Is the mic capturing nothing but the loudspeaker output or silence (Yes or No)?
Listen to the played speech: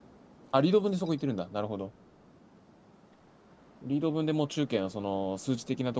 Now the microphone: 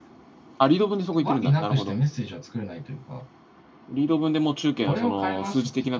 No